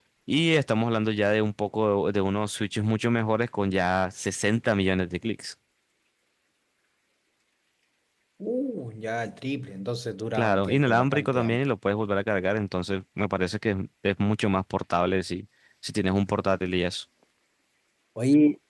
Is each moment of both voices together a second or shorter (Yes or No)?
No